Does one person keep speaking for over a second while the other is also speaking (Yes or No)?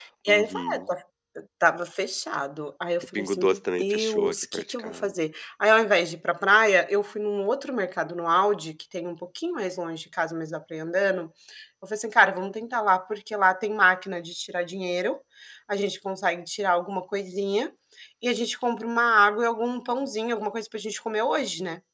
Yes